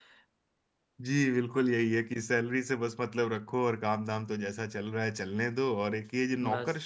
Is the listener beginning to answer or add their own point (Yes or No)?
No